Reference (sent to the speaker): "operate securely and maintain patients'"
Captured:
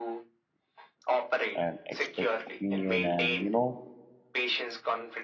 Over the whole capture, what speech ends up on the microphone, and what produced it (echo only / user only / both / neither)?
both